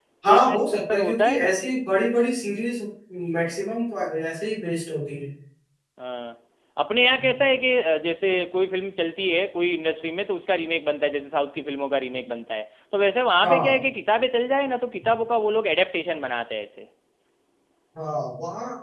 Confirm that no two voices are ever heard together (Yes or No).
No